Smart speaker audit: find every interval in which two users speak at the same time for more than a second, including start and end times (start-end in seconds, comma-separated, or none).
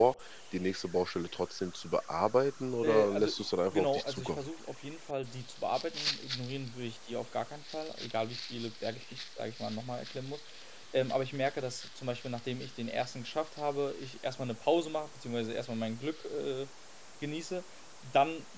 2.8-4.4